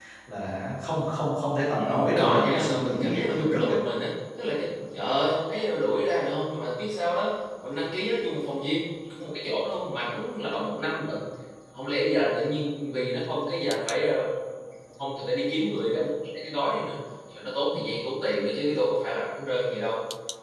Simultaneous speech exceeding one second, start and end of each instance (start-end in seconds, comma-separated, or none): 1.8-3.7